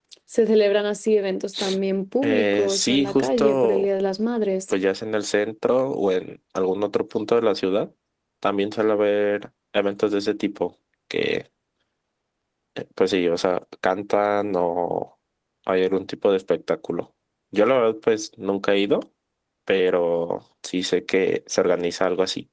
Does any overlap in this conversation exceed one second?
Yes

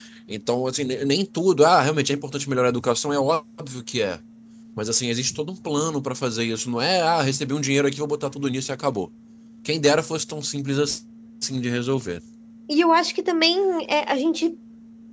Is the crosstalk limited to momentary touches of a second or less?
Yes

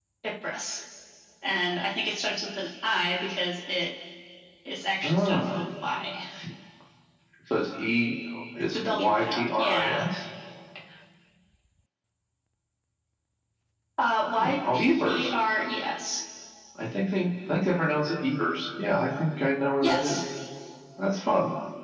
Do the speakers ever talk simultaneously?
Yes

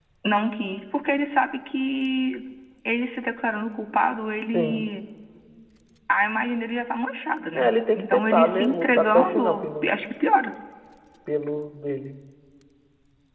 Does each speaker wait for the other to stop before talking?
No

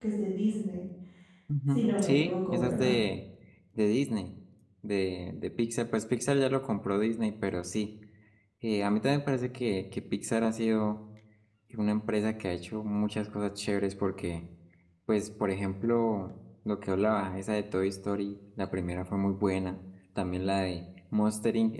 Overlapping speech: Yes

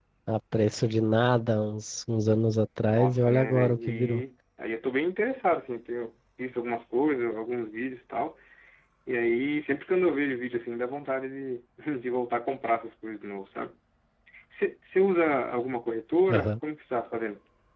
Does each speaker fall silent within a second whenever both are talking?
No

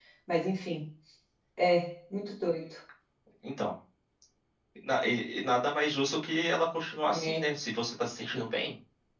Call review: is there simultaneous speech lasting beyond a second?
No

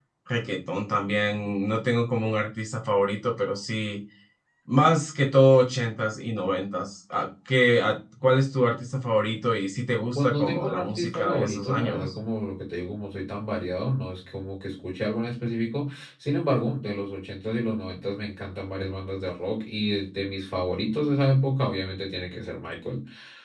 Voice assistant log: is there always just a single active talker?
No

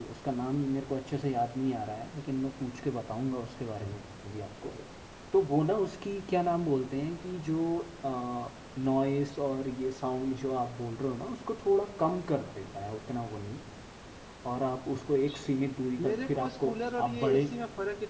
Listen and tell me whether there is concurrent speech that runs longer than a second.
Yes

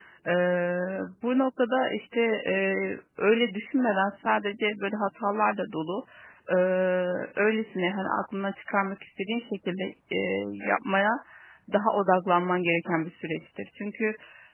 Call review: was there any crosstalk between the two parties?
No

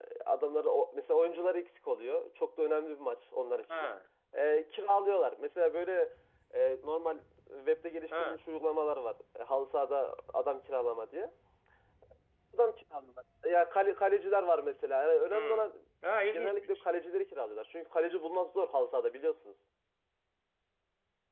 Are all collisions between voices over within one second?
Yes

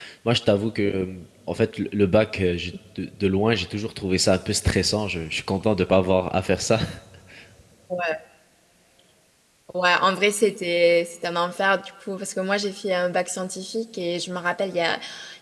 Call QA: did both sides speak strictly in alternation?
Yes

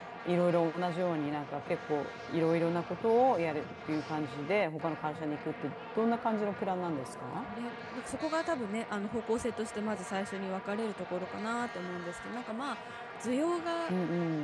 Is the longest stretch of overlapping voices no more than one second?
Yes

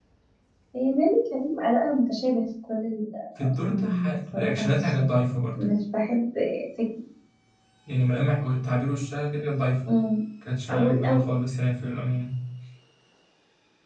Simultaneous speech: Yes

